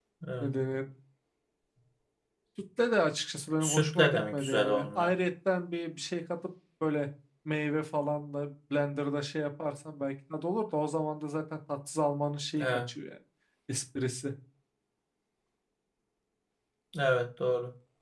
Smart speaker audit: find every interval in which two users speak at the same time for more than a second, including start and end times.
3.6-5.1

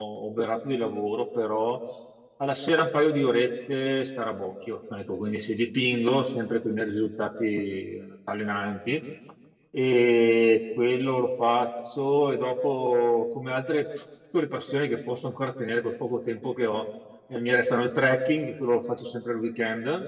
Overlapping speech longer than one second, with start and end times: none

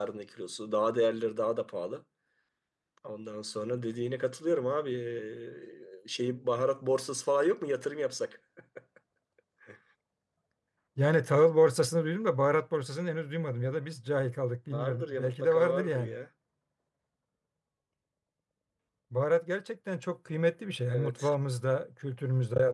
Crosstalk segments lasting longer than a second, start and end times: 14.7-16.1

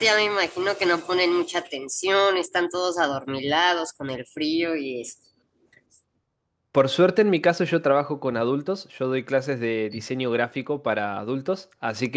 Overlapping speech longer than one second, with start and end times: none

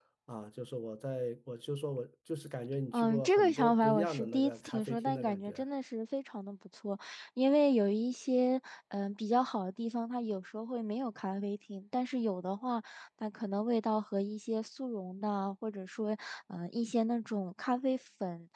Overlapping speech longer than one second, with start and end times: 2.9-5.6

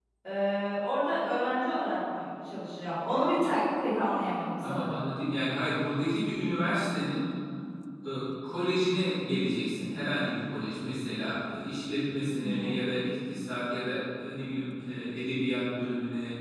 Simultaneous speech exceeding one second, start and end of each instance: none

